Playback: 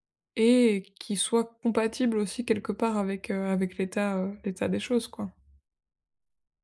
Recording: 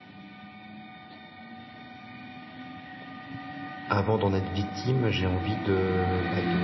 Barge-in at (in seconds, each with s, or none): 3.9 s